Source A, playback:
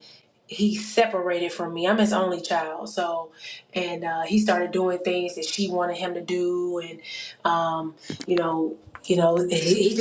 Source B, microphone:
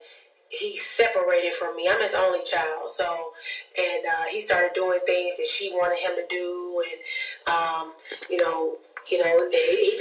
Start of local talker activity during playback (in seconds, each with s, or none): none